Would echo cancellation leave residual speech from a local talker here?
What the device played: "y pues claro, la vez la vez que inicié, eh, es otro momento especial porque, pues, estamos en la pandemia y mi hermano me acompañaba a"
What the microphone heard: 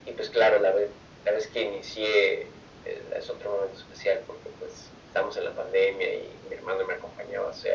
No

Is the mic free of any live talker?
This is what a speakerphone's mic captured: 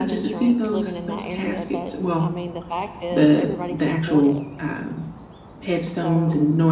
No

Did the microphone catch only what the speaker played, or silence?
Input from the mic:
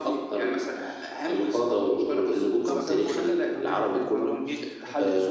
No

